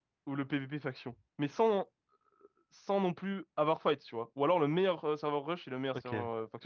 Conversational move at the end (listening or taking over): taking over